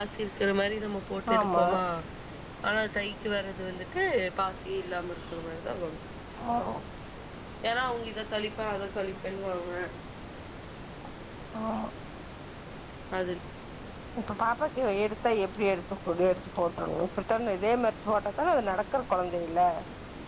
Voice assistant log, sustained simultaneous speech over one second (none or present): none